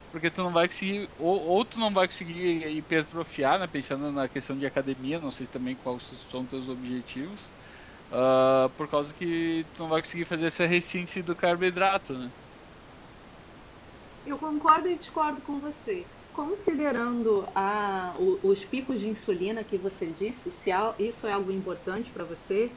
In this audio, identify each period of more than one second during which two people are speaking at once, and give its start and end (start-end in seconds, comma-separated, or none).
none